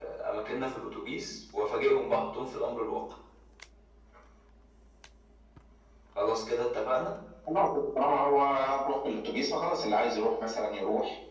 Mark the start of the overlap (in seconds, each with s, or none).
none